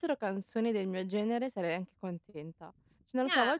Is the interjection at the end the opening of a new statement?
No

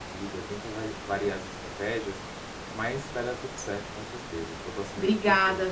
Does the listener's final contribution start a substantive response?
Yes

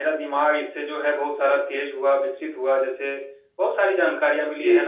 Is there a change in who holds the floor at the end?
No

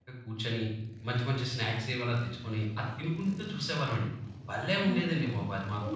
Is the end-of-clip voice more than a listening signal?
Yes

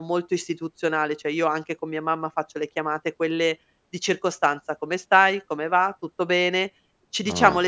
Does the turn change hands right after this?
No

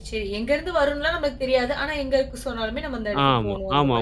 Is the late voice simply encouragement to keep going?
No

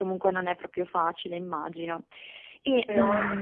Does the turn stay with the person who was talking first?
Yes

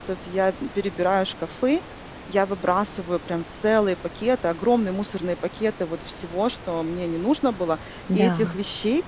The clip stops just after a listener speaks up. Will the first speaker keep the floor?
Yes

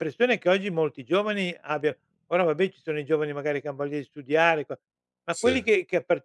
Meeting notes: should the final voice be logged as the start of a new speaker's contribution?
No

